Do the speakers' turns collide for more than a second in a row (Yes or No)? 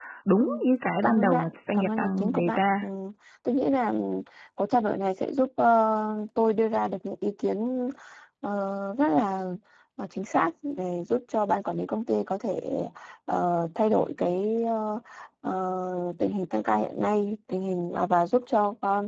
Yes